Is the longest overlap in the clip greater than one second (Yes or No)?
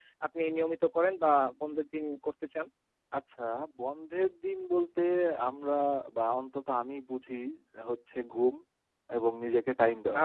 No